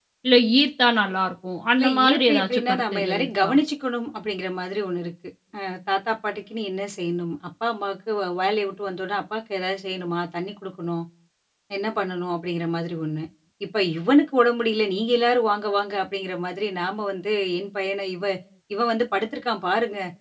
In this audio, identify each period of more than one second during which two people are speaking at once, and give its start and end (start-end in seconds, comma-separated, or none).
1.8-3.5